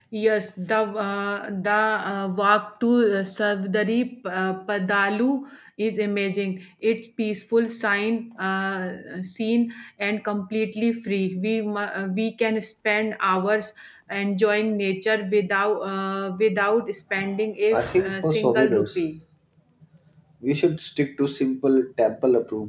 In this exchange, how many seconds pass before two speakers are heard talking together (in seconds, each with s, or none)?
17.7 s